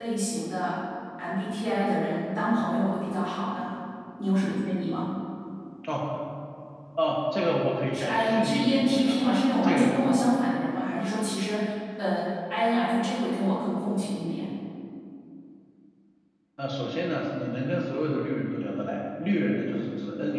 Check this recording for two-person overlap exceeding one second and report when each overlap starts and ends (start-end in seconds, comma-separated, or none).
7.9-9.2